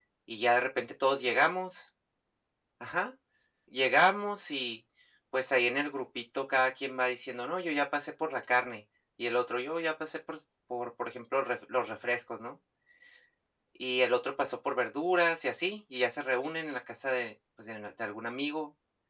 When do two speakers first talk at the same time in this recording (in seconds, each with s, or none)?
none